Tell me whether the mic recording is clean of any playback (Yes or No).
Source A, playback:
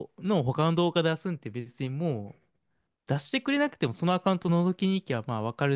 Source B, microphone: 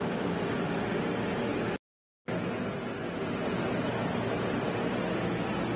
Yes